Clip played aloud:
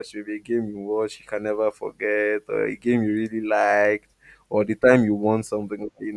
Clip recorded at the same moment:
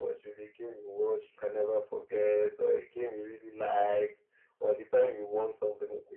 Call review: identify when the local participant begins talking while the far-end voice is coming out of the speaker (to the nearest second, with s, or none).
none